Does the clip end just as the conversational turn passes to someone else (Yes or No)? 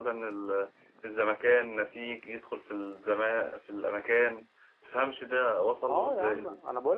Yes